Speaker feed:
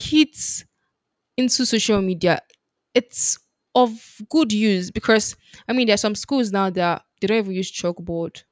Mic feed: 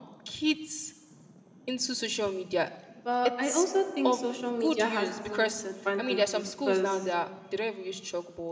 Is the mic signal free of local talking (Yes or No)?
No